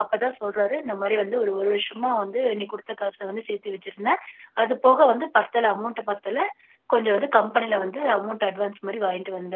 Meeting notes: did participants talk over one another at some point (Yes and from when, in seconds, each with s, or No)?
No